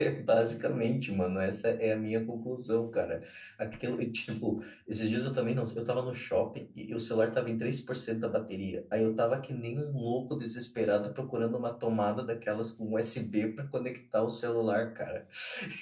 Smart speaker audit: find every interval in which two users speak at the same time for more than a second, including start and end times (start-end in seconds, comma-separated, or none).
none